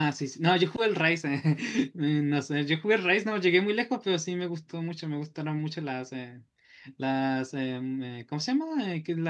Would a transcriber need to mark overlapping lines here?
No

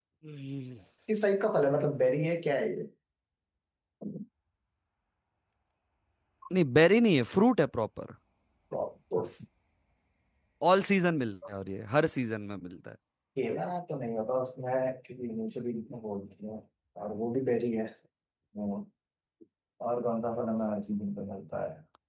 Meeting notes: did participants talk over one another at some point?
No

